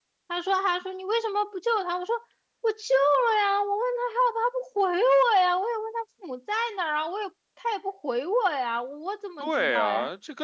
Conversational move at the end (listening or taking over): taking over